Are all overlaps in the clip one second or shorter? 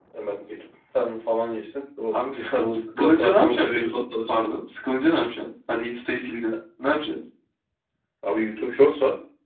No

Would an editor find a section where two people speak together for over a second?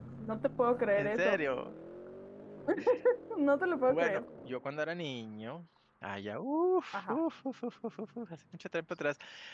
No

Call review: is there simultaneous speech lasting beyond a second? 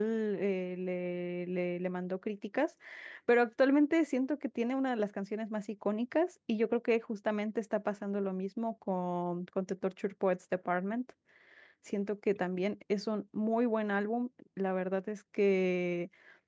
No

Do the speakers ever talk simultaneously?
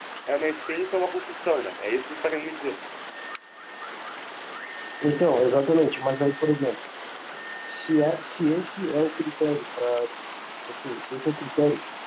No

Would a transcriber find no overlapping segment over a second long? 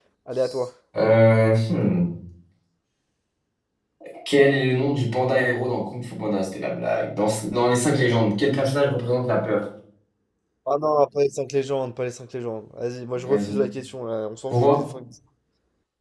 Yes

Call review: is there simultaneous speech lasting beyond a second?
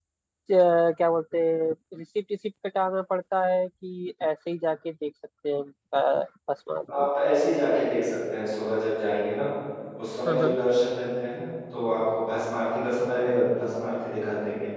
No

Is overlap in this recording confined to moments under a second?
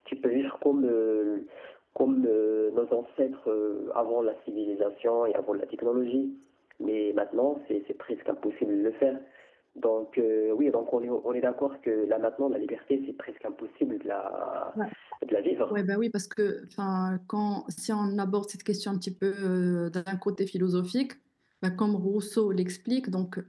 Yes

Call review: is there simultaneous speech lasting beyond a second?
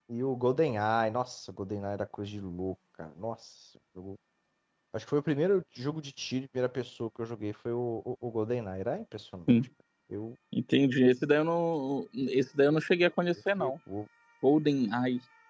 No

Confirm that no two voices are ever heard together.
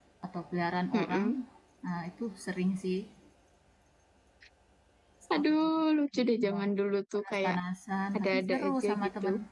No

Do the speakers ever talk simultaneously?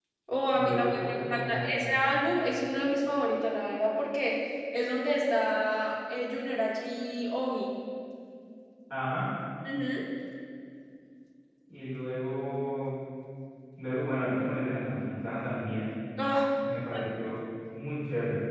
Yes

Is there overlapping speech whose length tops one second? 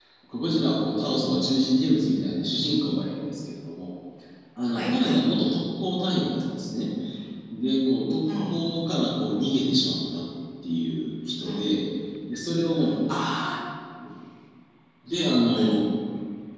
No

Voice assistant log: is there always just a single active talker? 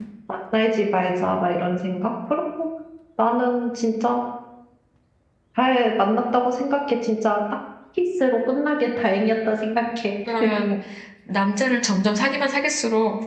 Yes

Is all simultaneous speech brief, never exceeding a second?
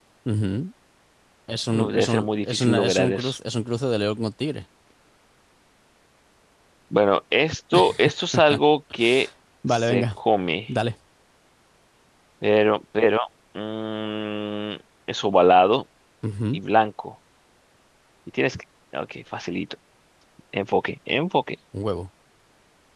No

